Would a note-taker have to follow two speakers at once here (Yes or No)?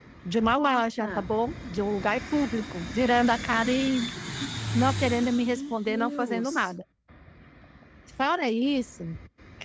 Yes